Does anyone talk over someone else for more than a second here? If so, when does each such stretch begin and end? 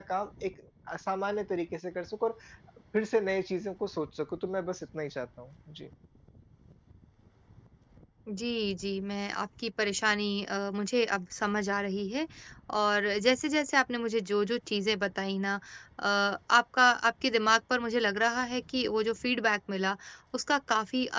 none

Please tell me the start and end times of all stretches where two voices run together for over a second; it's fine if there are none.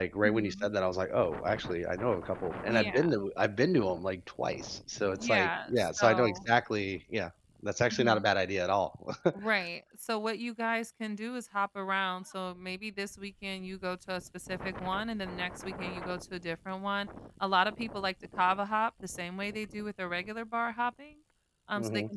5.1-6.4

